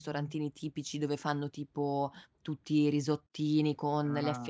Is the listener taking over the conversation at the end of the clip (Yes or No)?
No